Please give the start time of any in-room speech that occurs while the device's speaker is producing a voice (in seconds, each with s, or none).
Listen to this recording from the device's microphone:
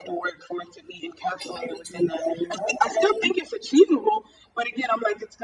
none